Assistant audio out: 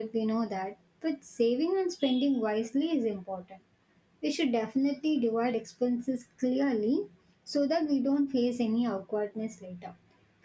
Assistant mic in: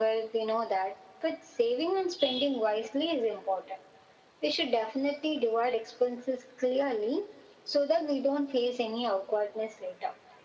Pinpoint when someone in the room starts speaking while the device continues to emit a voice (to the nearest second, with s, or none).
none